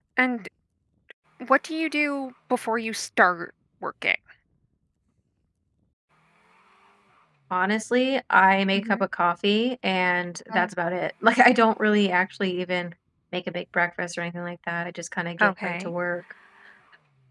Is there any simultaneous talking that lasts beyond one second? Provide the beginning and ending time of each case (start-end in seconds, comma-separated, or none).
none